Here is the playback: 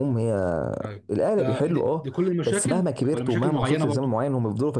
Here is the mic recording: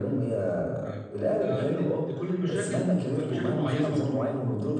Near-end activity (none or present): none